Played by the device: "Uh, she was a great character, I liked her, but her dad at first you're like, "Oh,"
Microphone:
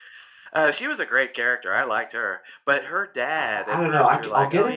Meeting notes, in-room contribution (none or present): present